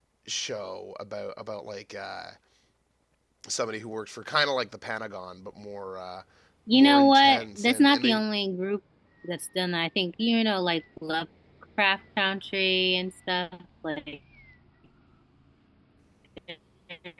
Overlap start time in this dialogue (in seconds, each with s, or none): 6.7 s